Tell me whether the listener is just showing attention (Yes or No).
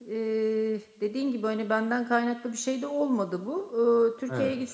Yes